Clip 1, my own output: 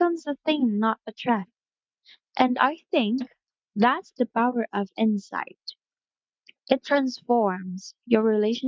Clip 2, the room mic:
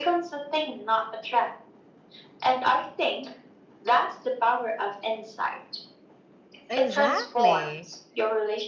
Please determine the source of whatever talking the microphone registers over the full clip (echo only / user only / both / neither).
both